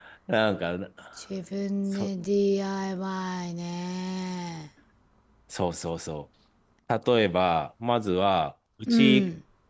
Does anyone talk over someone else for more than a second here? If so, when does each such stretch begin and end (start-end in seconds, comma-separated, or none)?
none